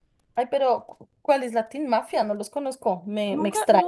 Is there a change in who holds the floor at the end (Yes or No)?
Yes